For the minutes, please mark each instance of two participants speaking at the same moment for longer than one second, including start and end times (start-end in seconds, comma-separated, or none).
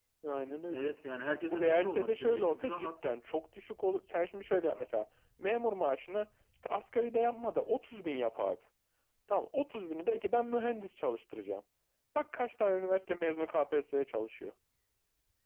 1.5-2.9